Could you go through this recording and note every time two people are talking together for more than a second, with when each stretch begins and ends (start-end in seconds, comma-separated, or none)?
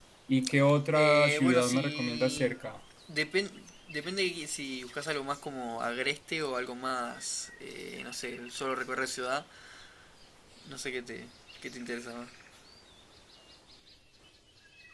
0.9-2.5